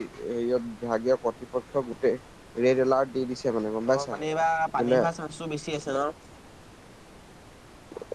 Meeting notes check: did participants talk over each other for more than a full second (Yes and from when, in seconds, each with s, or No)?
No